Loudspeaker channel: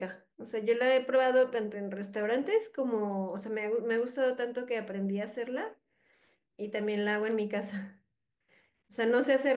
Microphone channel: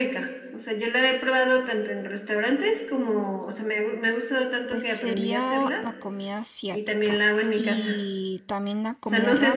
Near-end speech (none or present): present